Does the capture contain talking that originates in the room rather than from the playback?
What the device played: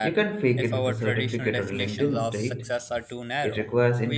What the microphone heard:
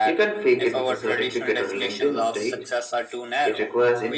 No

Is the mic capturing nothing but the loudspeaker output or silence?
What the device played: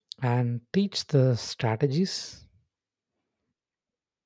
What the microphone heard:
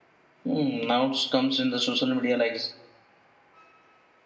No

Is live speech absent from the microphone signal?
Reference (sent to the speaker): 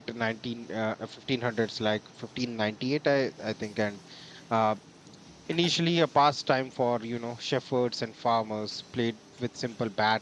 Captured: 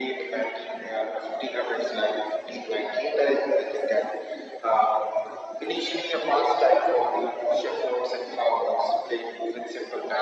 Yes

